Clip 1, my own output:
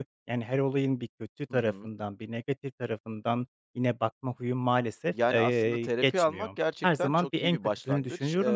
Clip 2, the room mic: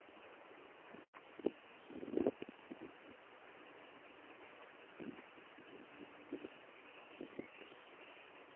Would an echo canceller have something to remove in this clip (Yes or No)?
No